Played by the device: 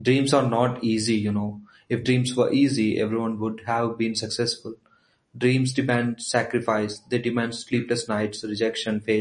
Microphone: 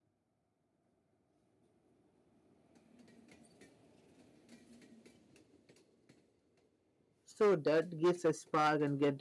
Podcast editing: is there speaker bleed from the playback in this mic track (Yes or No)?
No